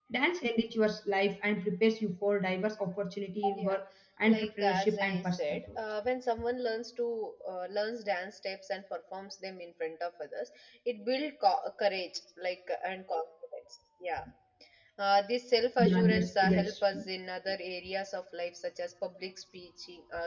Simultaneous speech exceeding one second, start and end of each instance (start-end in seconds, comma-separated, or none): 4.3-5.8, 15.8-17.0